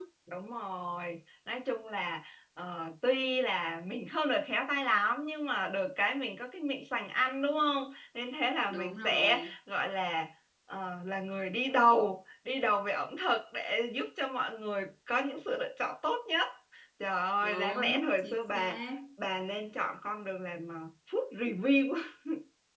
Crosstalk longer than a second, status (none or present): present